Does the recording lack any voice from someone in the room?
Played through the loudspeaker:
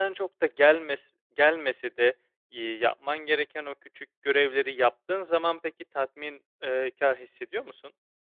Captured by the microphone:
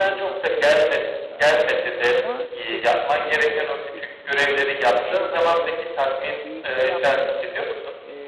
No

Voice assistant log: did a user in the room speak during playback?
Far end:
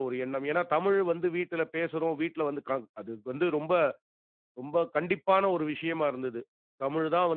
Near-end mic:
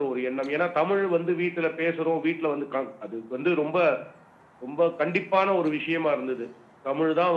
No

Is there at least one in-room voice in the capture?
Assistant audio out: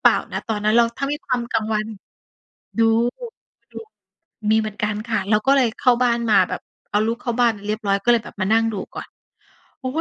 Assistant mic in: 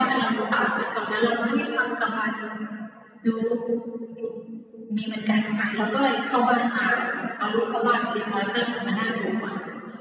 No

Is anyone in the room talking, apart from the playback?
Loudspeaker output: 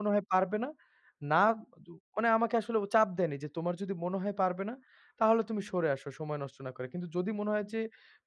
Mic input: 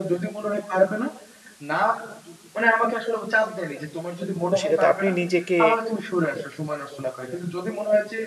Yes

